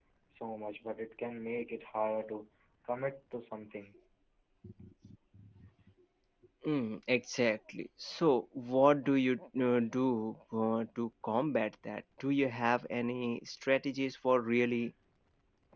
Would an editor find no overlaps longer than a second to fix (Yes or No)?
Yes